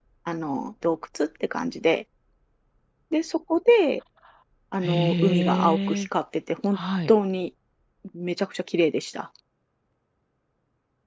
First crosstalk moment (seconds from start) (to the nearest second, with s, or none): 5 s